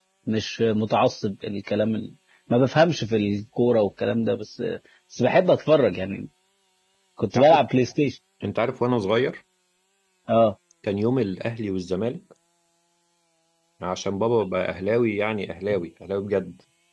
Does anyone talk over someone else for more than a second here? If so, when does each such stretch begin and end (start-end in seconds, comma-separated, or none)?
none